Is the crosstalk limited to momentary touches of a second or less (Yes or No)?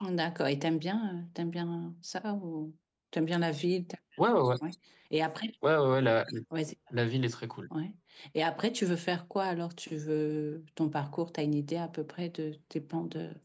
Yes